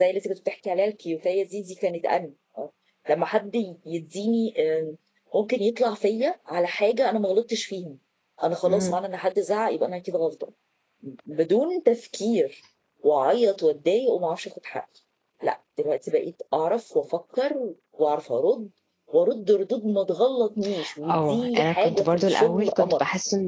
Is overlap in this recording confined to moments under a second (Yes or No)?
No